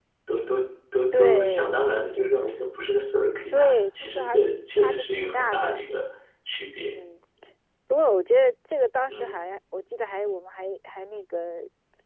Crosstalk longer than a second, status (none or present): present